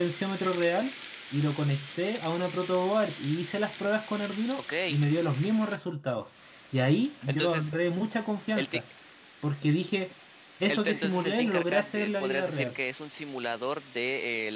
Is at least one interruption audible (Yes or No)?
Yes